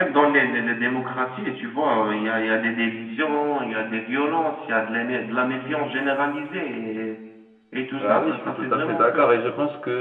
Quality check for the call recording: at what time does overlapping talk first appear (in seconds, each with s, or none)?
8.0 s